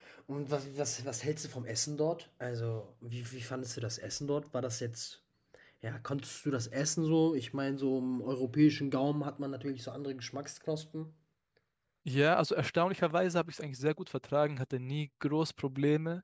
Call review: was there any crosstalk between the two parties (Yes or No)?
No